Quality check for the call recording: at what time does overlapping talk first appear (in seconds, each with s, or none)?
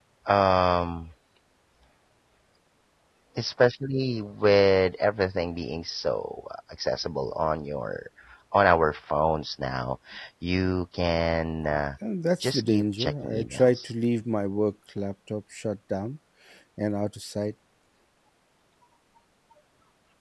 12.4 s